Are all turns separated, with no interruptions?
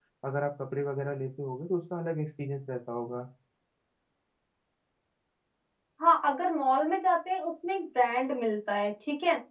Yes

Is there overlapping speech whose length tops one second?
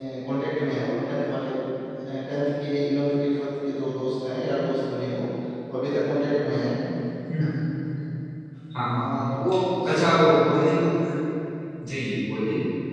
No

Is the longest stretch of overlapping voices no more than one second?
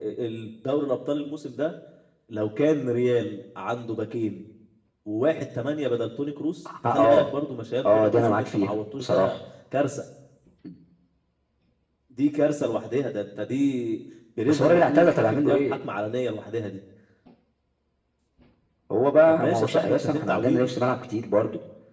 No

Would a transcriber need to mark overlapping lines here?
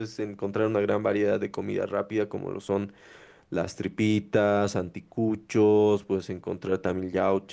No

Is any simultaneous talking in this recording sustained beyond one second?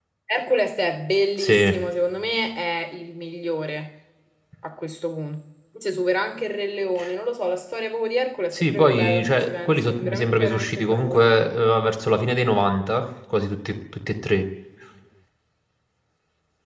Yes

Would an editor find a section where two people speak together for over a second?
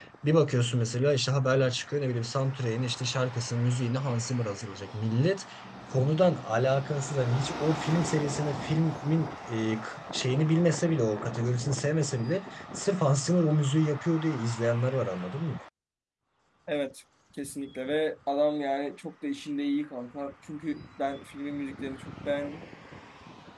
No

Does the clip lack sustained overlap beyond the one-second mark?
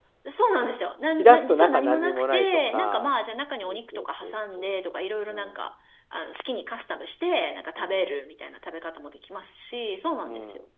No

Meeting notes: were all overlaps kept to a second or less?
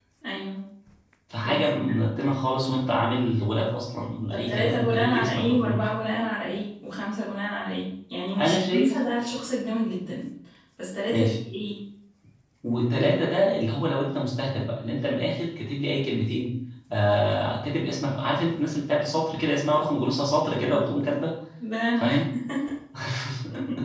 No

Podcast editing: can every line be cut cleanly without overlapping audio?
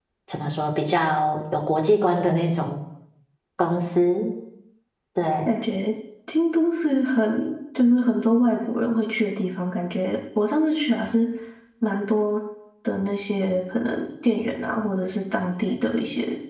Yes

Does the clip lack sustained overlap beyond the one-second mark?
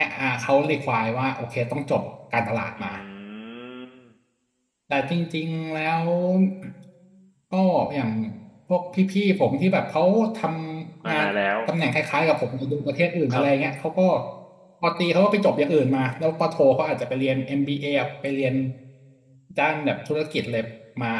Yes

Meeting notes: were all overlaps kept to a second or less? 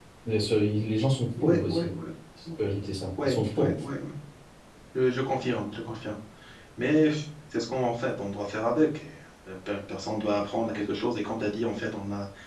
Yes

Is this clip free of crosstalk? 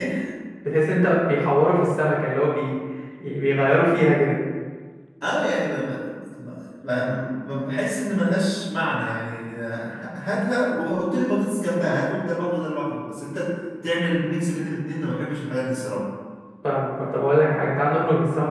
Yes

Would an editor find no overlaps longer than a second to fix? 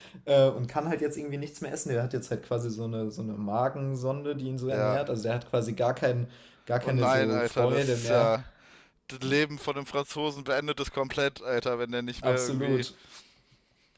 No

